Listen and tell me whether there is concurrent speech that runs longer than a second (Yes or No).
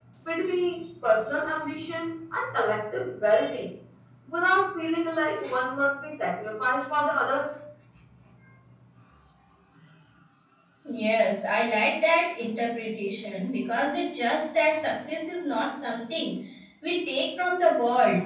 No